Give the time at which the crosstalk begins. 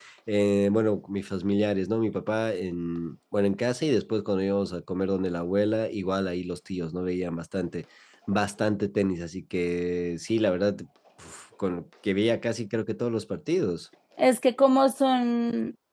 none

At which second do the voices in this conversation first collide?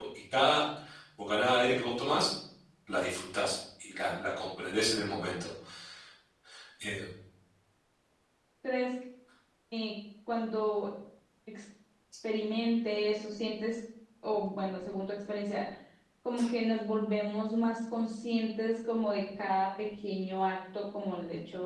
none

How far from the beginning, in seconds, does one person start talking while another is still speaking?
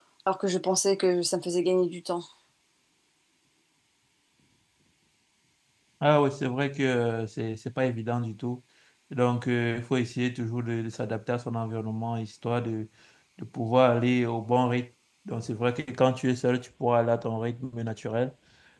none

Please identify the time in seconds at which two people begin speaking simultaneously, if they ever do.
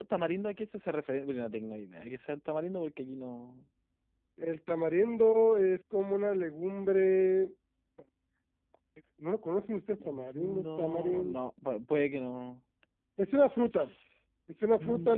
10.0 s

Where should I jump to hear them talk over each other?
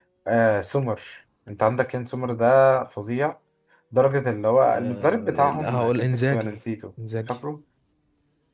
4.7 s

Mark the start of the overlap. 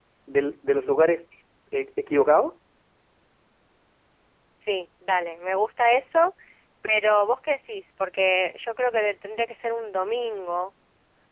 none

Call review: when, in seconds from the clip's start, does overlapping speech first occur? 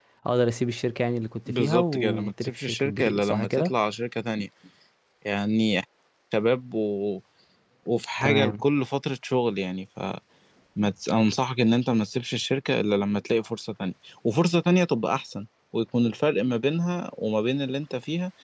1.5 s

